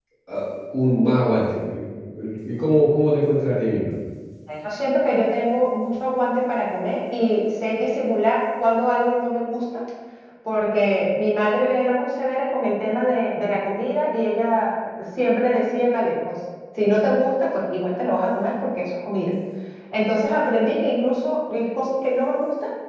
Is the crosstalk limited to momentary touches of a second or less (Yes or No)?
Yes